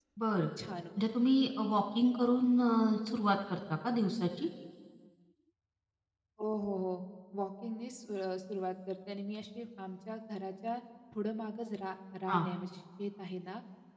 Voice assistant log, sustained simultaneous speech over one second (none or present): none